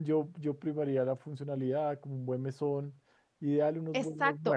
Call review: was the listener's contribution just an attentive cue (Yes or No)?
No